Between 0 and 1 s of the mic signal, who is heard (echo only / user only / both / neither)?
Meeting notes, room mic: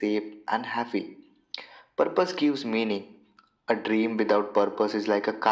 echo only